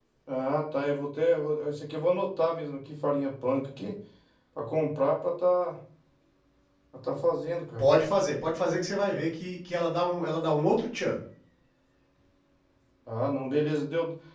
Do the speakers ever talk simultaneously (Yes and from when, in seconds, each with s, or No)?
No